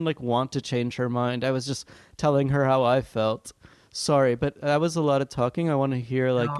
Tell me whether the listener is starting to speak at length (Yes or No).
Yes